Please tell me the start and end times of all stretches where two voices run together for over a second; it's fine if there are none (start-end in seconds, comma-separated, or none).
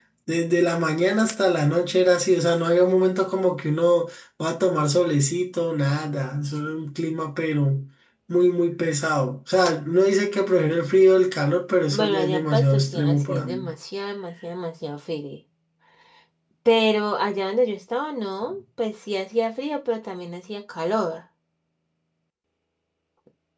11.9-13.7